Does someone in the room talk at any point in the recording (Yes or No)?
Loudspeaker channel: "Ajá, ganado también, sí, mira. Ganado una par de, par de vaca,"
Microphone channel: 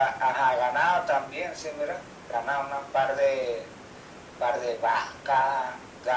No